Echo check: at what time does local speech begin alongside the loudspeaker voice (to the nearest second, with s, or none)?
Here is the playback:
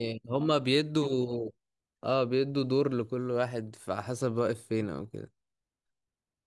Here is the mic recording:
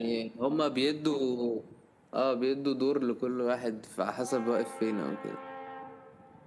none